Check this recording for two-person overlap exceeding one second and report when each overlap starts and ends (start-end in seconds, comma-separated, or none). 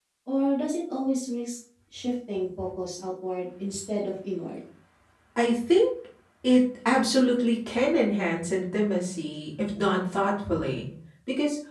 none